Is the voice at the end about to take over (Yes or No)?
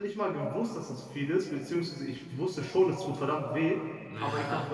No